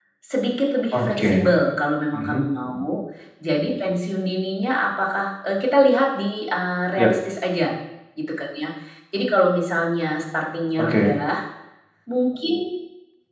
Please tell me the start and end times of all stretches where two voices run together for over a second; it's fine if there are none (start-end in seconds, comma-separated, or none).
none